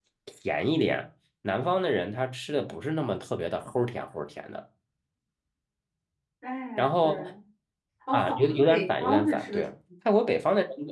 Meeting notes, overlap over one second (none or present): present